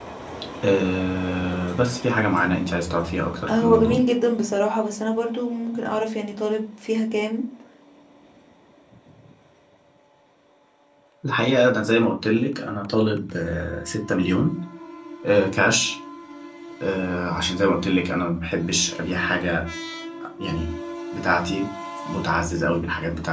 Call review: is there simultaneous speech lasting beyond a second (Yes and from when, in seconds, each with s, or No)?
No